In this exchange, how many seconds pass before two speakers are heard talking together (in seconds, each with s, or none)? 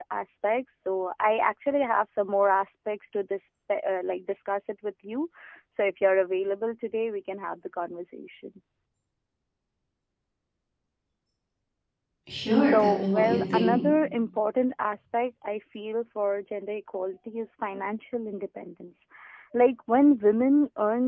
12.5 s